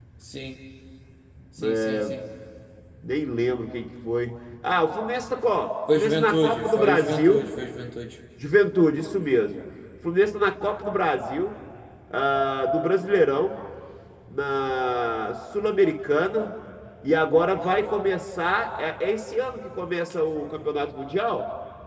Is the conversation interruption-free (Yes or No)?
No